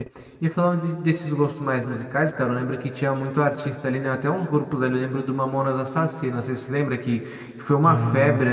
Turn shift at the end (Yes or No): No